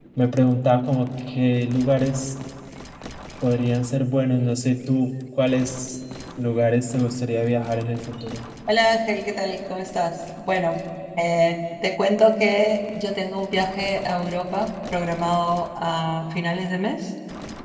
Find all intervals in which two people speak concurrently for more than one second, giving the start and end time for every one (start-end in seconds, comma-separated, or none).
none